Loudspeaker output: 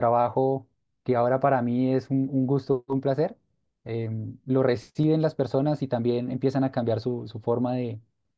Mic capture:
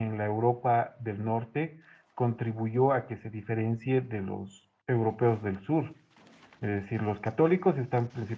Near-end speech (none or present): present